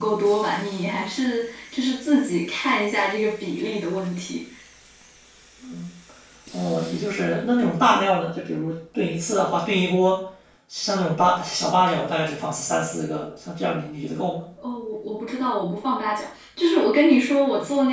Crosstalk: none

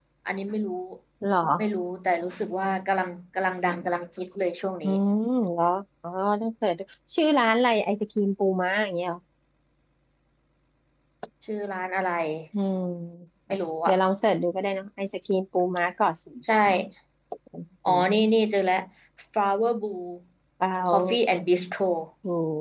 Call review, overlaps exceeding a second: none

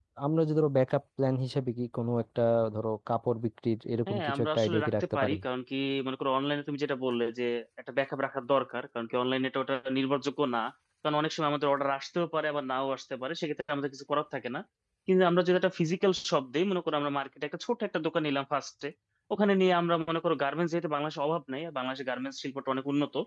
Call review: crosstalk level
present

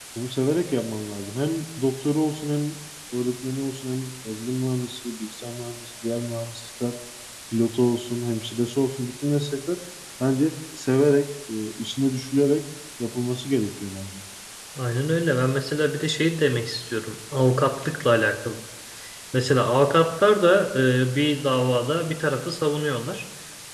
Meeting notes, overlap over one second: none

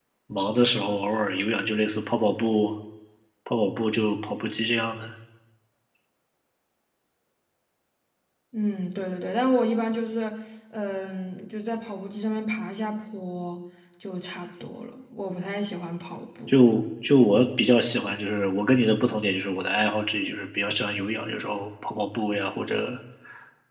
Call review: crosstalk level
none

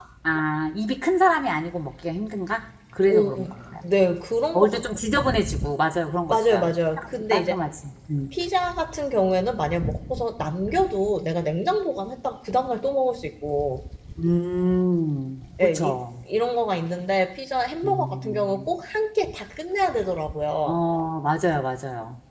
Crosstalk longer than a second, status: present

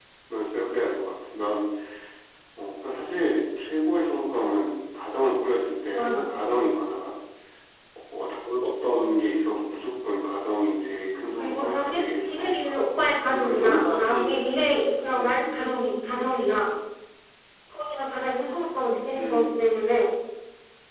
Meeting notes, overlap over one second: present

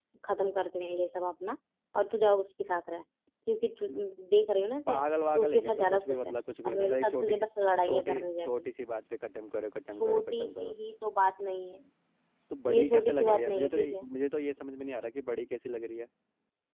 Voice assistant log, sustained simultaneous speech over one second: present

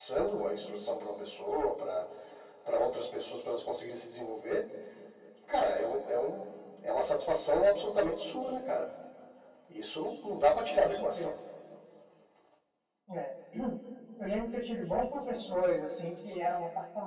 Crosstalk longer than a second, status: none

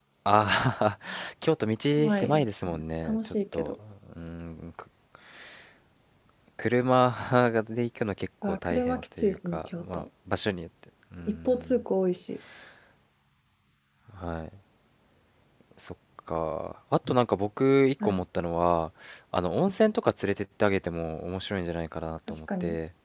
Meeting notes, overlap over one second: present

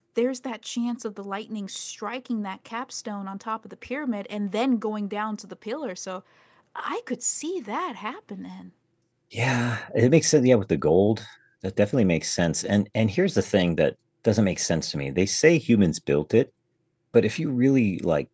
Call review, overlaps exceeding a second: none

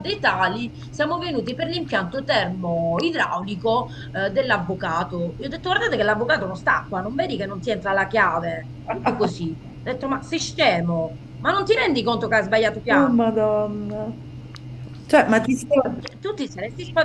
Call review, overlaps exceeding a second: none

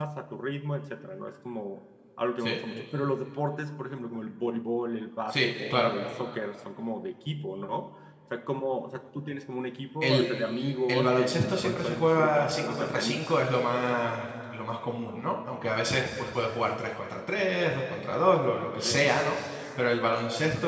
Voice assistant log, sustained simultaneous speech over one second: present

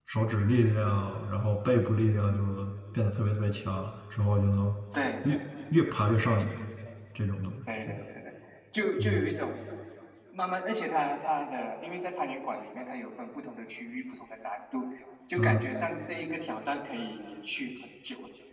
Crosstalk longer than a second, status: none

